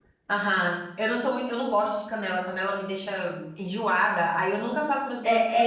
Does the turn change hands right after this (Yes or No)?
Yes